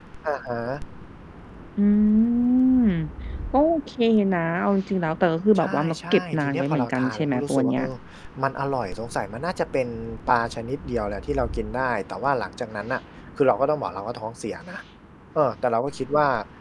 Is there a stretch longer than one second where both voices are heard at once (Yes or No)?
Yes